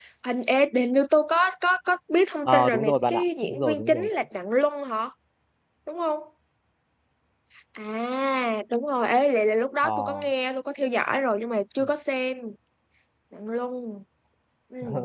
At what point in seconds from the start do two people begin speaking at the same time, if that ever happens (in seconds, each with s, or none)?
2.5 s